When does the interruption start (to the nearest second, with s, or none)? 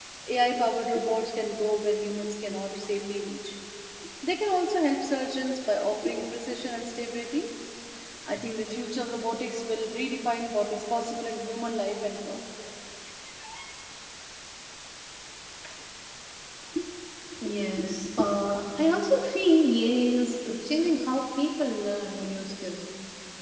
none